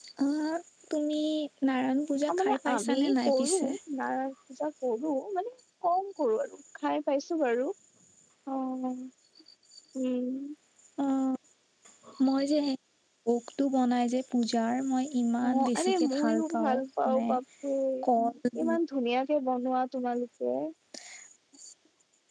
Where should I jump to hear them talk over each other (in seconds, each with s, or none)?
2.4 s